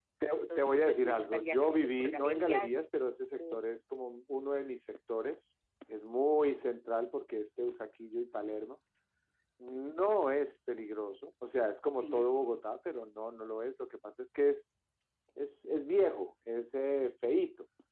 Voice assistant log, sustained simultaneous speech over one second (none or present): present